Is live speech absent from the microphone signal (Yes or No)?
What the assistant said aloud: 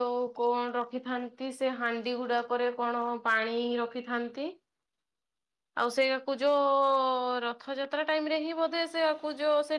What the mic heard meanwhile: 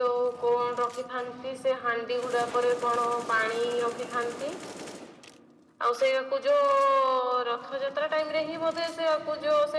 Yes